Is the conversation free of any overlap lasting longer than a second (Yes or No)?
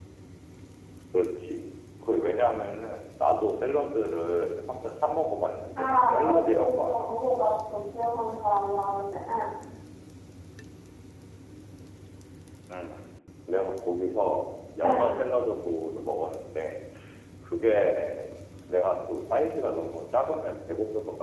No